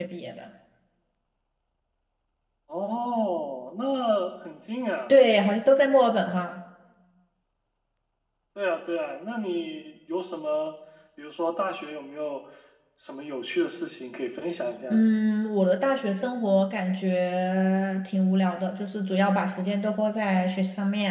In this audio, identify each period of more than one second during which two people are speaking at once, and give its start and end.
none

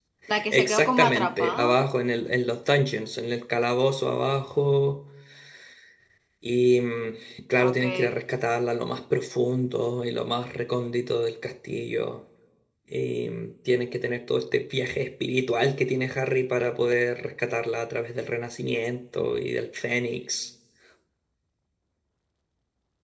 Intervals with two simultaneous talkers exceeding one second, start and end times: 0.5-1.8

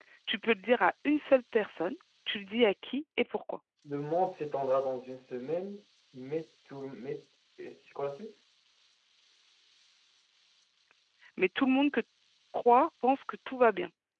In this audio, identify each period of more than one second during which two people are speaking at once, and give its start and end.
none

